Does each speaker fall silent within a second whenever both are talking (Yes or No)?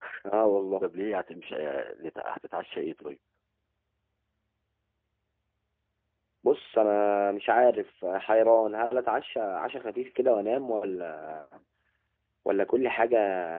Yes